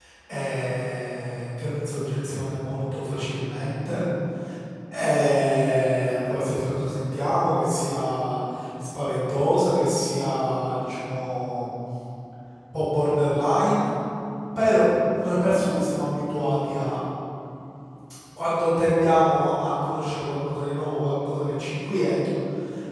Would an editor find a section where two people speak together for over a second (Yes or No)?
No